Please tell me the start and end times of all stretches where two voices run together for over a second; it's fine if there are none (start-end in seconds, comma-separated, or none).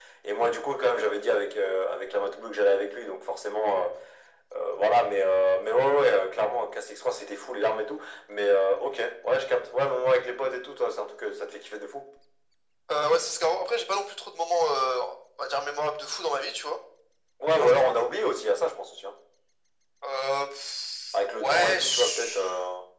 21.1-22.4